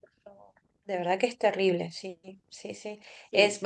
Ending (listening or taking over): listening